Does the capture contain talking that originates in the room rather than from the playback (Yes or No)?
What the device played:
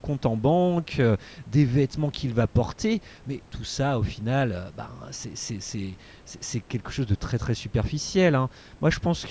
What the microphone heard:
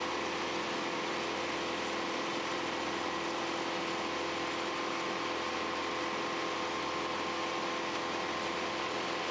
No